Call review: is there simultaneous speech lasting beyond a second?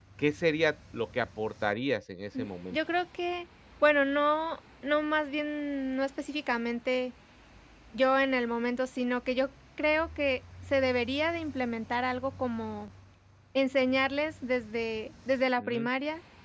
No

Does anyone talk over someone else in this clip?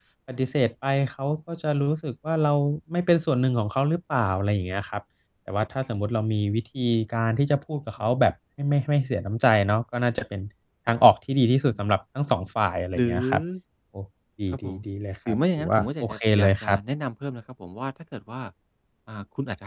Yes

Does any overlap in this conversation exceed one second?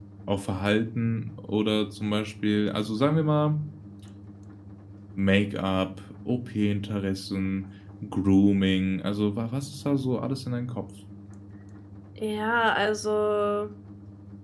No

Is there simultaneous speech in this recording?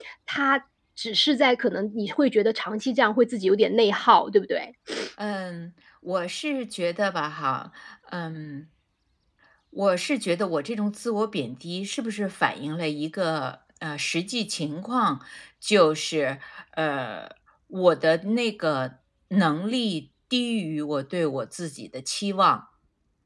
No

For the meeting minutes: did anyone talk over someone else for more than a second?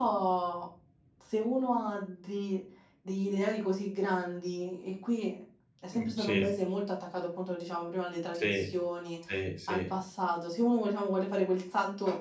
No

